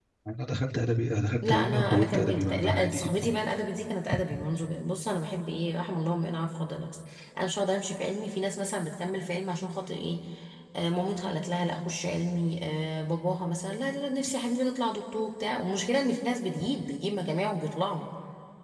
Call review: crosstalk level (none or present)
present